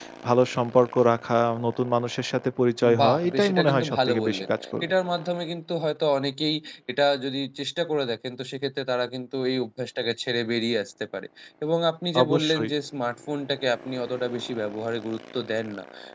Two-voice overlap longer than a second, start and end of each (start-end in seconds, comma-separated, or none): 3.0-4.4